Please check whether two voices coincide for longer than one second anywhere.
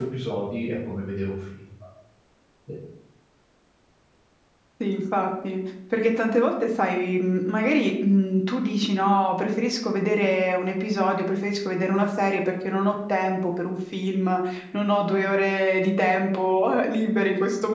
No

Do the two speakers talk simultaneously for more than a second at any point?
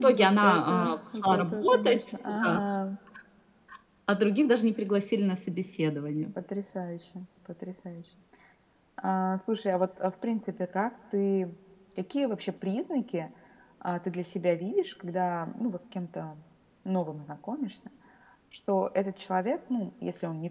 Yes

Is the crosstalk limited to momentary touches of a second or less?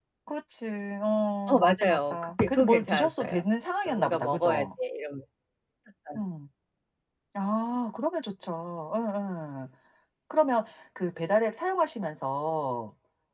No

